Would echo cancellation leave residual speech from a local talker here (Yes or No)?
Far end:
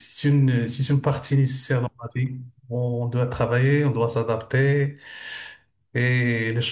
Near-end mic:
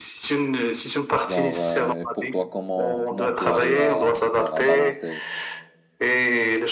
Yes